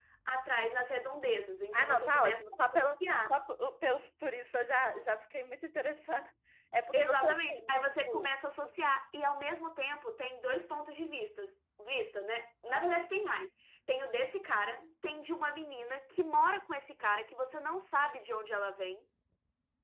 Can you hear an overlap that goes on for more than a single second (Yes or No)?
Yes